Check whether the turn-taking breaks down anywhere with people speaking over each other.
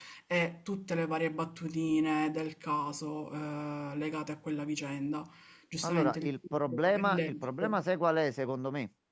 Yes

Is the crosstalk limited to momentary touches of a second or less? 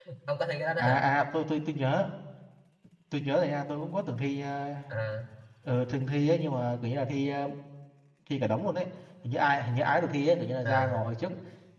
Yes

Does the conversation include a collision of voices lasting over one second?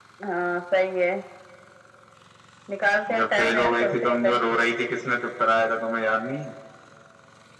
Yes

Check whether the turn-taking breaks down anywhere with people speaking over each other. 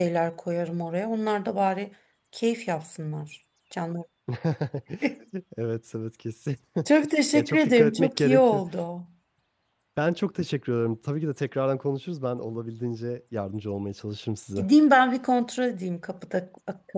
Yes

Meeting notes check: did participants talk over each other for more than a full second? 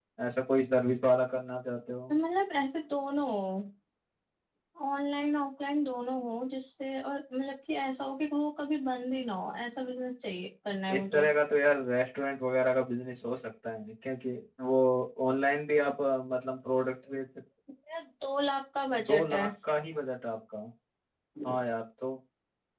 No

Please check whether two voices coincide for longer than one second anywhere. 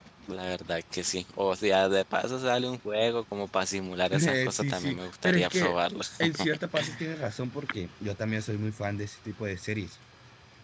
Yes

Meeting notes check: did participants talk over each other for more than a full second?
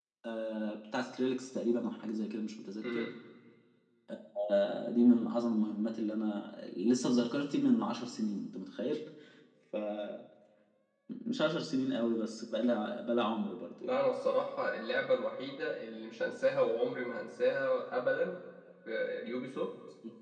No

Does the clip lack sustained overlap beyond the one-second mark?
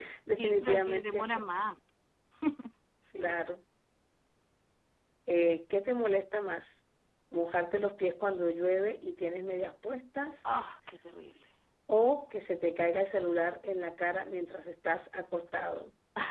No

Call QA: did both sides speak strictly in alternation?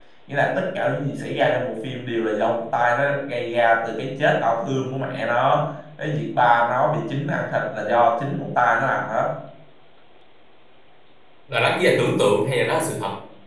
Yes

